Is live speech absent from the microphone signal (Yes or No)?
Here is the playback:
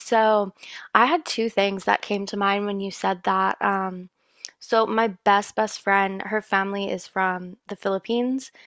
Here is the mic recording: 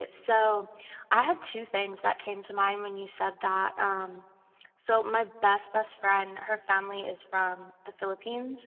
Yes